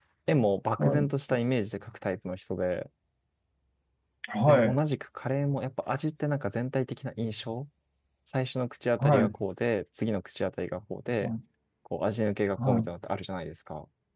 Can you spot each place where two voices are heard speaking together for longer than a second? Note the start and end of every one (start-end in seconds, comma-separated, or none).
none